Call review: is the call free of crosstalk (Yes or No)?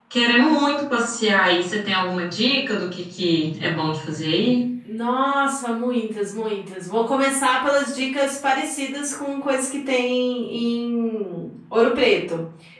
Yes